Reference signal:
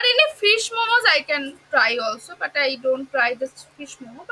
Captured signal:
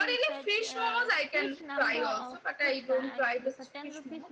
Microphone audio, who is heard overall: both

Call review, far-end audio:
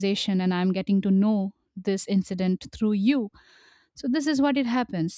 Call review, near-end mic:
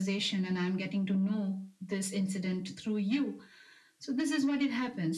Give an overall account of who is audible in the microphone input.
echo only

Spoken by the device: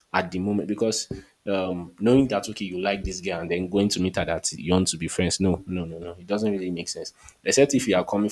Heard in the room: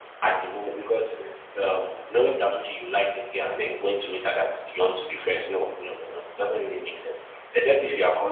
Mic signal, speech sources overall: echo only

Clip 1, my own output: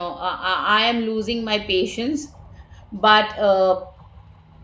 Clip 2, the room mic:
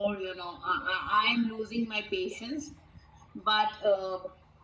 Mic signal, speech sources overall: echo only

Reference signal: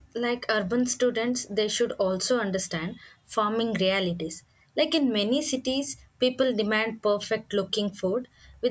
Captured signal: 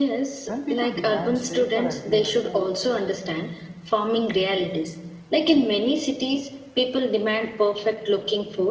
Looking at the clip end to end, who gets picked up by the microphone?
both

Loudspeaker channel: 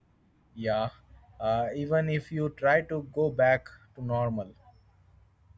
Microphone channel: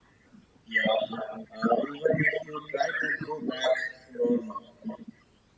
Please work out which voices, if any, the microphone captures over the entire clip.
echo only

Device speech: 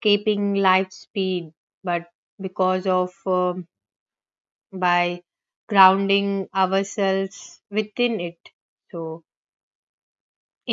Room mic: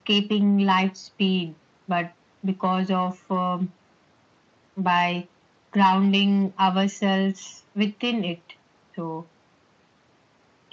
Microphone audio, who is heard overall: echo only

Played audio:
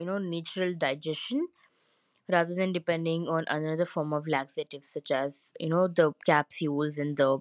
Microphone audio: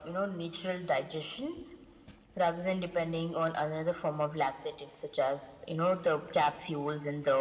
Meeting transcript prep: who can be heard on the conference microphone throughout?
echo only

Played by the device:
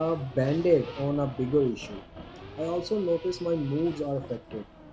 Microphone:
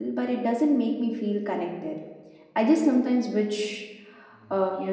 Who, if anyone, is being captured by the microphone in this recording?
user only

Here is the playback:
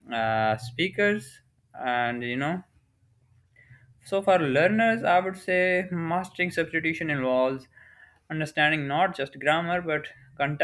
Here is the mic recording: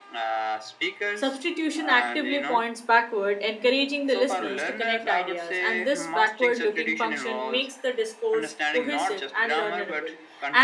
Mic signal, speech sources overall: both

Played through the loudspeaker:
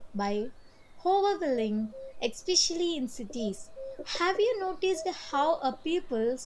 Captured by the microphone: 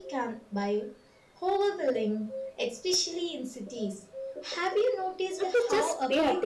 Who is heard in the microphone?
both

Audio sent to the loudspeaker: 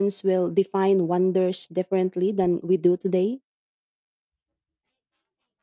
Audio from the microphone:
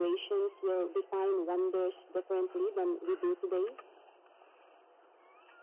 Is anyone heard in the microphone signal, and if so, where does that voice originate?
echo only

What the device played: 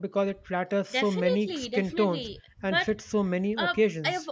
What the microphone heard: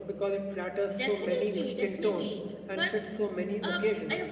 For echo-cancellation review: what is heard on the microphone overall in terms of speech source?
echo only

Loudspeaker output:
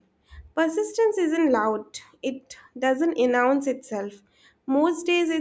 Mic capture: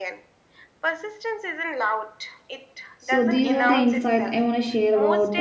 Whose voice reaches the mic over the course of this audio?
both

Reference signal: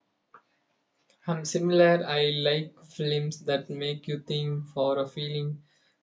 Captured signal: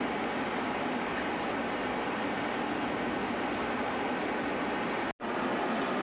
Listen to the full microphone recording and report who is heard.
neither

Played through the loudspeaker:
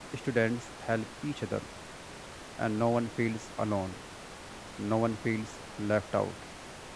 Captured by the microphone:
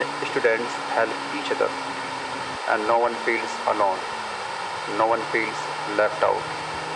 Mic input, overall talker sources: echo only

